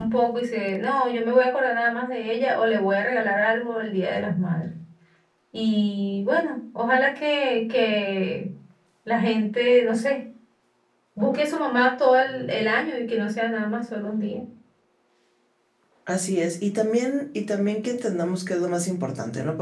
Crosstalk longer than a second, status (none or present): none